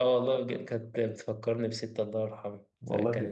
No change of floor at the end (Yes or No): Yes